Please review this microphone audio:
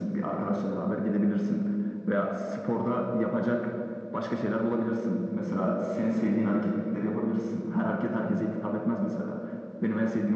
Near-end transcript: none

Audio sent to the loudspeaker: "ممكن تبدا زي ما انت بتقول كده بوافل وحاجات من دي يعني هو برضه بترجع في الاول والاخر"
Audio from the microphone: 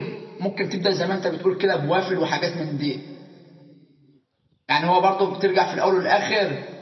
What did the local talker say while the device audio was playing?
none

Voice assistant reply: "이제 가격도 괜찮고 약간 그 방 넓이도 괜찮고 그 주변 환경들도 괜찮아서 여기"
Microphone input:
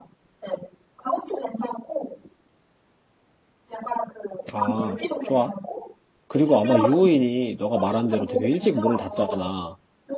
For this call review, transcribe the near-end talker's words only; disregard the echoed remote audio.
아, 좋아. 그리고 아마 유호인이 너가 말한 대로 되게 일찍 문을 닫잖아.

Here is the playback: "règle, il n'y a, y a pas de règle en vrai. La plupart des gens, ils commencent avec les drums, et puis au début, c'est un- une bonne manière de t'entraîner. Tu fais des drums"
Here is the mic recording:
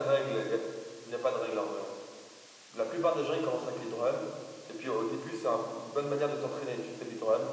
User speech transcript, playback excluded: none

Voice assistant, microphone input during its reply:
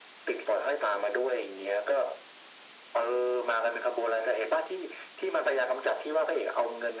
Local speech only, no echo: none

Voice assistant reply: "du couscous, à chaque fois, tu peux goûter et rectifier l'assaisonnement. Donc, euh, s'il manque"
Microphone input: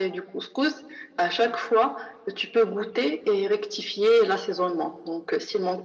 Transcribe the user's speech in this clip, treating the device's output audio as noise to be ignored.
none

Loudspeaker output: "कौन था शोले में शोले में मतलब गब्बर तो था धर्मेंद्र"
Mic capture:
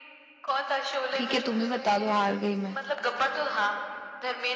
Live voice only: ठीक है तुम ही बता दो हार गई मैं

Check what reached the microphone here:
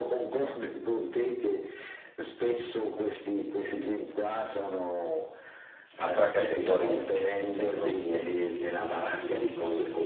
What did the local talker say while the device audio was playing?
Altra categoria direi, cioè proprio

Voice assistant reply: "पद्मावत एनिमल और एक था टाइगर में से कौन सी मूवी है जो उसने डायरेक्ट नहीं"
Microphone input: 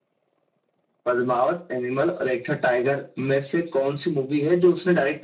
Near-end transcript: none

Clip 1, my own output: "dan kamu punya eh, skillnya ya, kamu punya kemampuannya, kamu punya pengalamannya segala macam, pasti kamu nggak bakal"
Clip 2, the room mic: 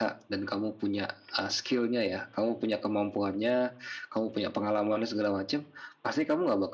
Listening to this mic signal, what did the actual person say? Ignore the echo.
none

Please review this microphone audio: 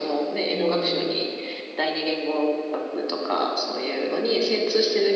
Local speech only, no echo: うん。

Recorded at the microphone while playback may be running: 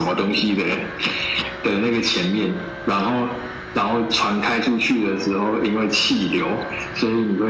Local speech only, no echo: none

